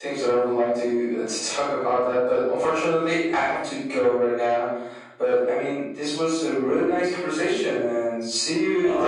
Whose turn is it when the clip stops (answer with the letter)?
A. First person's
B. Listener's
B